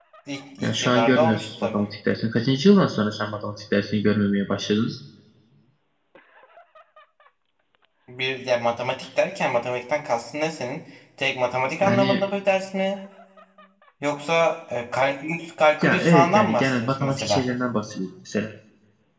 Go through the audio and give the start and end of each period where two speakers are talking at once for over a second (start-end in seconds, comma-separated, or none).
0.6-1.8, 15.8-17.4